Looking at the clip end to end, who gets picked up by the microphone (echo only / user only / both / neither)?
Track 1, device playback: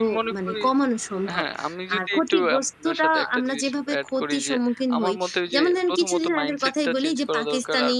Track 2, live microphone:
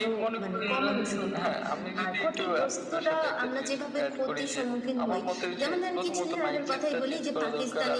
both